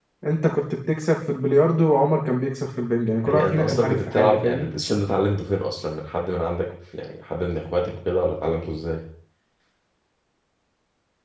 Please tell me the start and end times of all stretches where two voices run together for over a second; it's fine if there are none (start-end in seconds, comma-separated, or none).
3.2-4.7